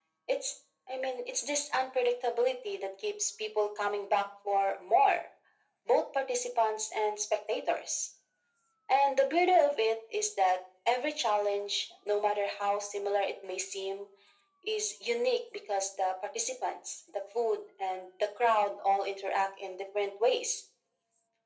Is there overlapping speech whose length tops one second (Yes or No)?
No